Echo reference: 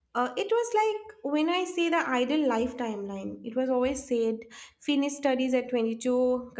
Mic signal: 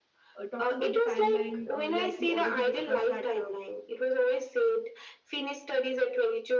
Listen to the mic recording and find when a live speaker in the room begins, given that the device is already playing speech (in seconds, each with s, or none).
0.3 s